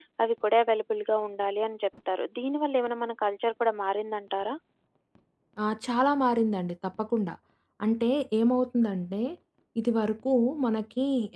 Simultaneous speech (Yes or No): No